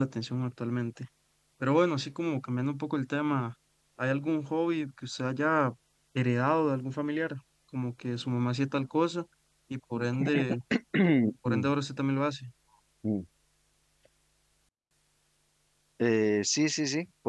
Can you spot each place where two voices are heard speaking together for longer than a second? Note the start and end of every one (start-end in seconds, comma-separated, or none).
none